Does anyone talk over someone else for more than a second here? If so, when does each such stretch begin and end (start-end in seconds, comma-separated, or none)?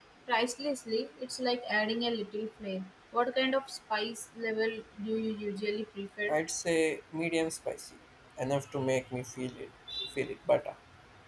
none